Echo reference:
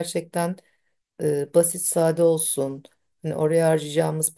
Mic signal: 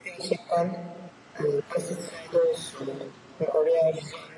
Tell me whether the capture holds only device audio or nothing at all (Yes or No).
Yes